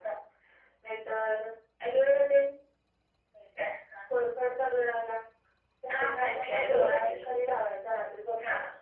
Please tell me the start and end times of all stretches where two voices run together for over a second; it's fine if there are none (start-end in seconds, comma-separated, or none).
5.9-7.3